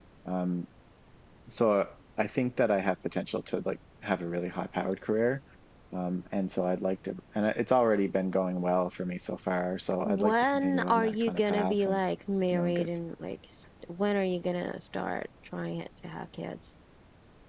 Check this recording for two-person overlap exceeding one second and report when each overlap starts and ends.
10.1-12.0

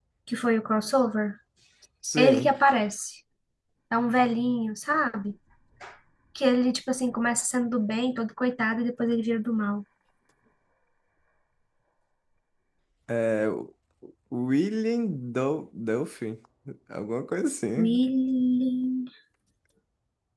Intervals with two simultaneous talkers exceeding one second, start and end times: none

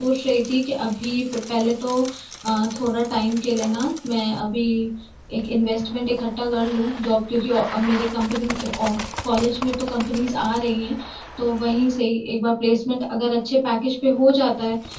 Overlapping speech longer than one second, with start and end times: none

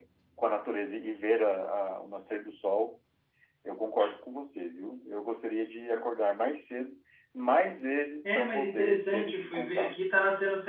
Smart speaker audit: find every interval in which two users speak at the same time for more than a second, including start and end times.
8.2-10.0

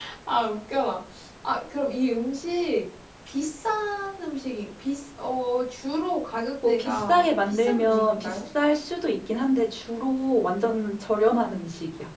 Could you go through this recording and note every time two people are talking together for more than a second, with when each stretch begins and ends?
6.7-8.4

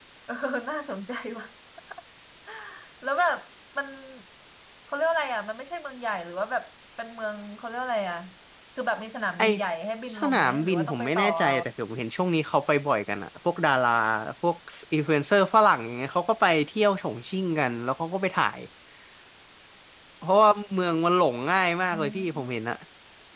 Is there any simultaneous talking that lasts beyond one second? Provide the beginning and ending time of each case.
10.2-11.5

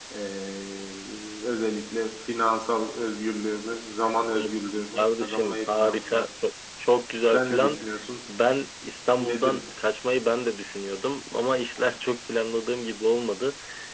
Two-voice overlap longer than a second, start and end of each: 5.0-6.2

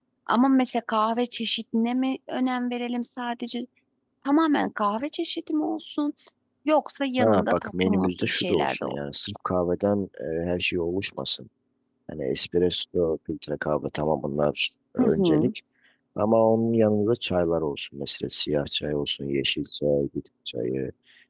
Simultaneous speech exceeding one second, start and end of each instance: 7.2-9.0

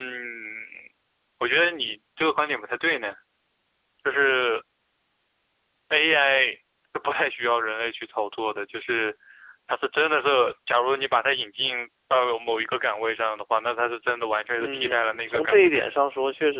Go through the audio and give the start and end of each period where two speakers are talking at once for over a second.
14.6-15.9

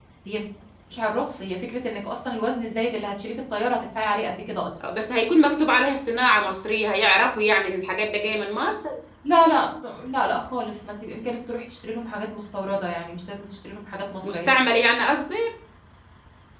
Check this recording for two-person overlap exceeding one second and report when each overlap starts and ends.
none

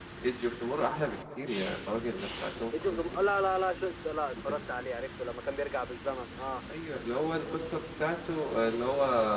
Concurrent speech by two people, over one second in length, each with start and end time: none

